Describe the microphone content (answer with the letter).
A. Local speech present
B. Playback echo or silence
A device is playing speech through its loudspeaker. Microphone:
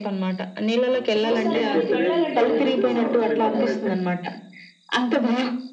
A